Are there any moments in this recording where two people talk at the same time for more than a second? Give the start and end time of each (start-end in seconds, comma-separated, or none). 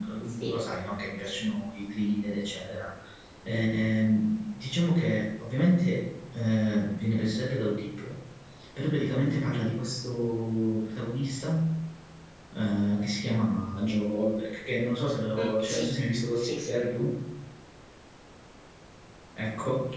none